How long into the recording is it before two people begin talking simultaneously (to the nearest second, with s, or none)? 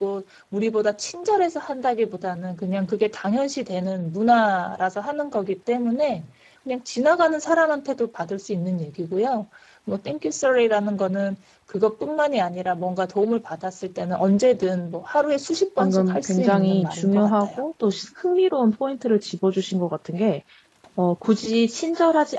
16 s